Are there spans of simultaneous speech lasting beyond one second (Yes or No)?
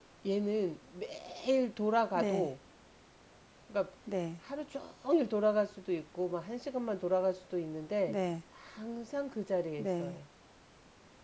No